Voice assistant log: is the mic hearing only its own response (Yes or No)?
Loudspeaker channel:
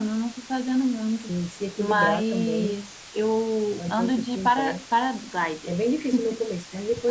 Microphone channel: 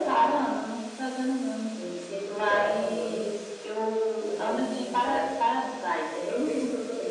Yes